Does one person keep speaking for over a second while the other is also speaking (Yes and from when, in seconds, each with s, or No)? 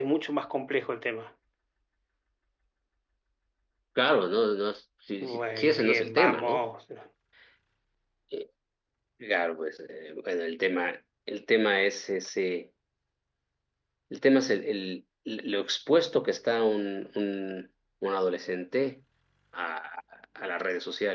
Yes, from 5.2 s